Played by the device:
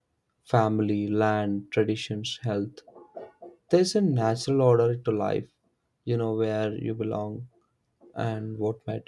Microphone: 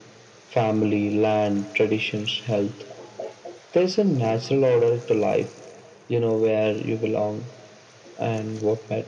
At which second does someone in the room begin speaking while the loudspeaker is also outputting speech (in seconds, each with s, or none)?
none